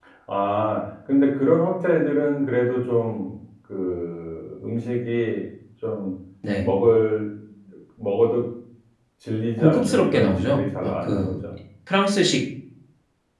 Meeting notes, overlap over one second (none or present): present